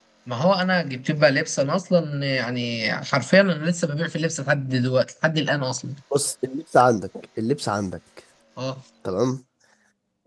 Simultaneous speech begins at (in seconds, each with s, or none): none